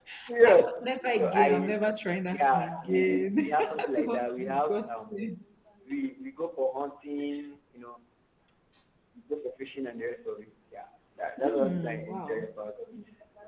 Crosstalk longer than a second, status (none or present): present